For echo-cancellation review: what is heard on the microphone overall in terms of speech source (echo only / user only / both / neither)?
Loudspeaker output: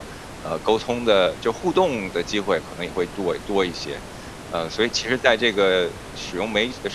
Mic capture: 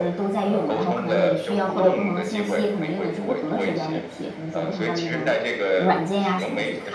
both